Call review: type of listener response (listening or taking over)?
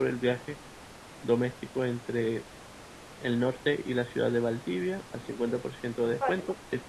listening